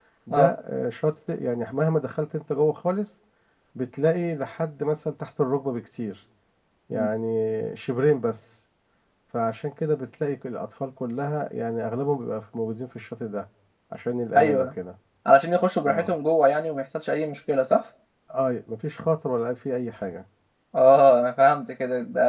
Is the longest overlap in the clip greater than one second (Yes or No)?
No